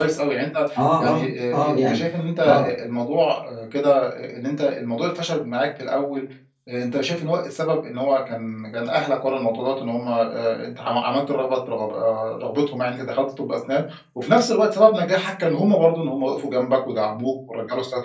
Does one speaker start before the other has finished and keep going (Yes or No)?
Yes